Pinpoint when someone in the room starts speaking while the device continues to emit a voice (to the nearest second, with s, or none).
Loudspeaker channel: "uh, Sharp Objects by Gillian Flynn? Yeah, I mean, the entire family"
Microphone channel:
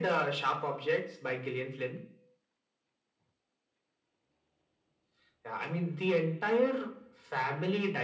none